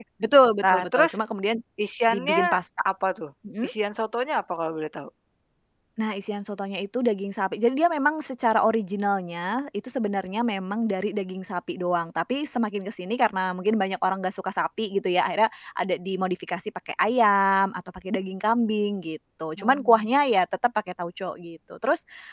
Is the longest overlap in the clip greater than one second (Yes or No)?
No